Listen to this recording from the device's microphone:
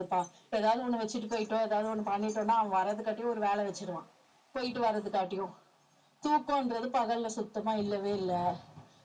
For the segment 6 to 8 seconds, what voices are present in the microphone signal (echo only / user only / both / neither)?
echo only